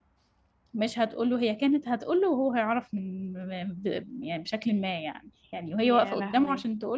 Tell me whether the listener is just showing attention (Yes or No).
Yes